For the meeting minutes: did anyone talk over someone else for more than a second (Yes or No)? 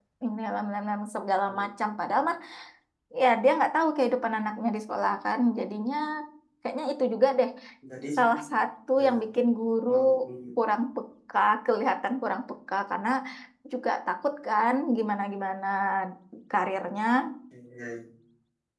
No